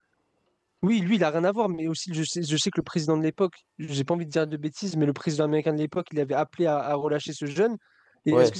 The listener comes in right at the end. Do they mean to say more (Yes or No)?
No